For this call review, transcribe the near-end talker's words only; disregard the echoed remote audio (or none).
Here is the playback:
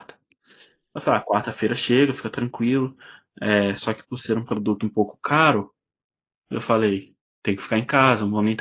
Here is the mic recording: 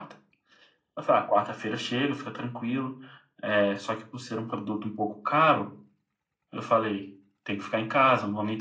none